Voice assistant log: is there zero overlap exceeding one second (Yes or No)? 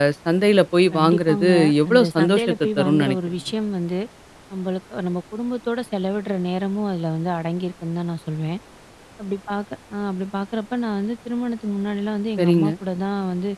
No